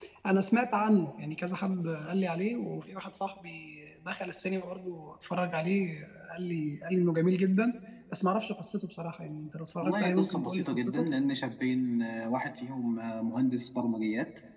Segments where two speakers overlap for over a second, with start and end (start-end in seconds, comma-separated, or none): 9.8-11.0